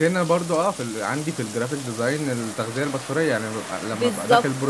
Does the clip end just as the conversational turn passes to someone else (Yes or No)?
No